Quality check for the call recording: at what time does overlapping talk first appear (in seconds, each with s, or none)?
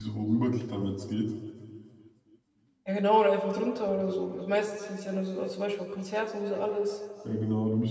none